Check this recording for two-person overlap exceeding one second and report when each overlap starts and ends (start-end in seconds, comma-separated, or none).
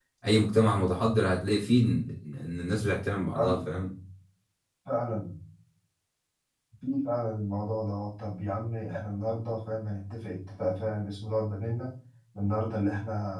none